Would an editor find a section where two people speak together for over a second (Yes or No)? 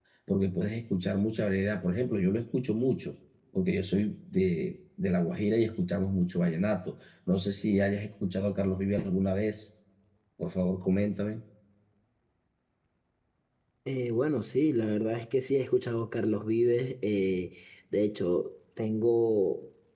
No